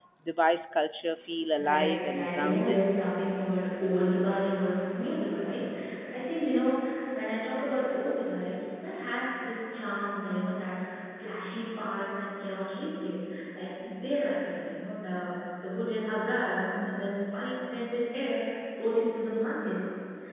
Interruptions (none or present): present